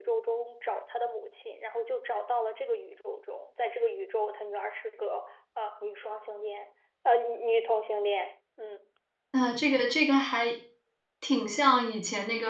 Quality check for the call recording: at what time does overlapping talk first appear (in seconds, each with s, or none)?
none